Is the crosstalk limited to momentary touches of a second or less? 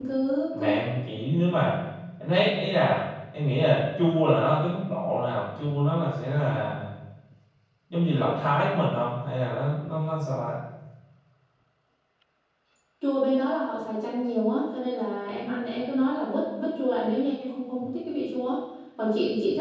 Yes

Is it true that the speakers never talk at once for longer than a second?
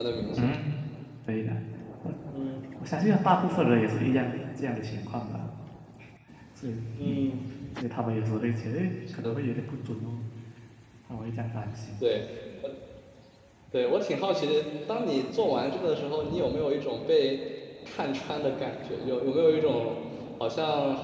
Yes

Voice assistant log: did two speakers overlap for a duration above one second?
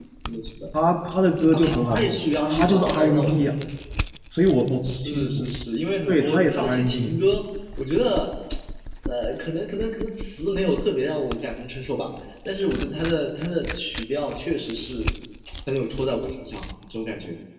Yes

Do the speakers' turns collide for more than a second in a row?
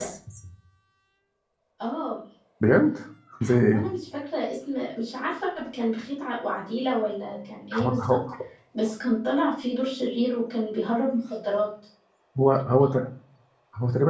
No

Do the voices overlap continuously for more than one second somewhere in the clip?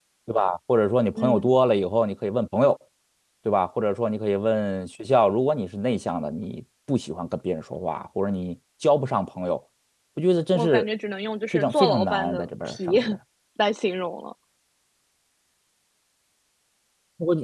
Yes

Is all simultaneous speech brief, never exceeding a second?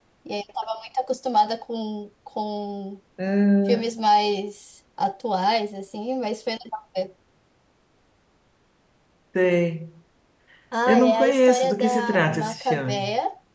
No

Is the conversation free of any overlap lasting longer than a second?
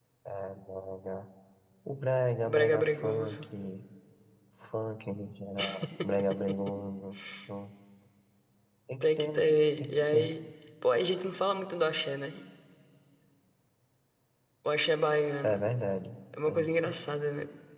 No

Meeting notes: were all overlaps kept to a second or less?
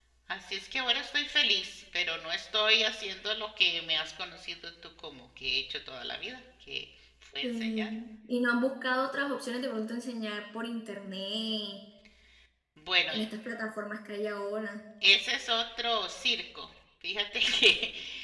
Yes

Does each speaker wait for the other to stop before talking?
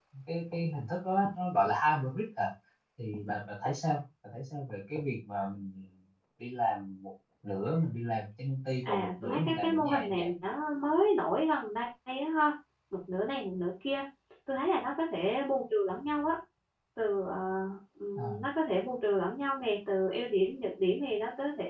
No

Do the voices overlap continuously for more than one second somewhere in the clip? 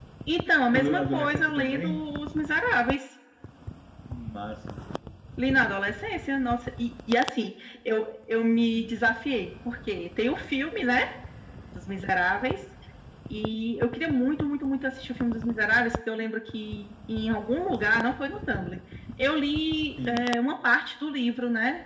Yes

